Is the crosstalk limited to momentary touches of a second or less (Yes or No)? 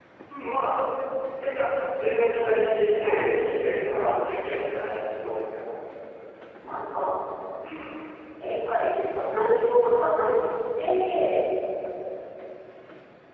No